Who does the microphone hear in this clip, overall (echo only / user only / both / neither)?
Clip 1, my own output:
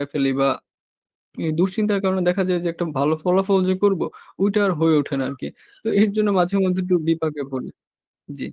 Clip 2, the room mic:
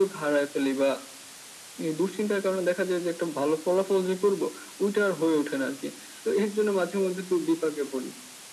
echo only